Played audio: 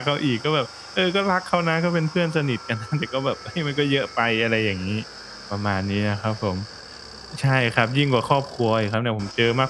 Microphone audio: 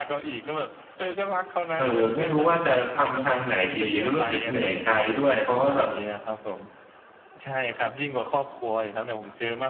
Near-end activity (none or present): present